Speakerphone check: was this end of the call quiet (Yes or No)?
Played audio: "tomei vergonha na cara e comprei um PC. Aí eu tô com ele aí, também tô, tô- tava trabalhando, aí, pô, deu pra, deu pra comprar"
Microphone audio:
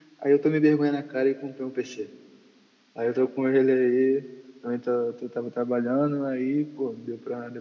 Yes